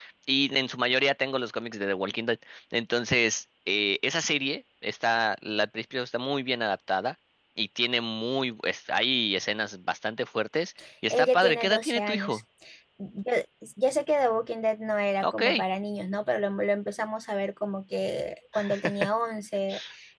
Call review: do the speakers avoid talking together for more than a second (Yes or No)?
No